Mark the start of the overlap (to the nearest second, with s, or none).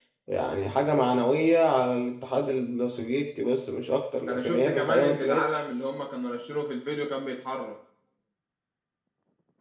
4 s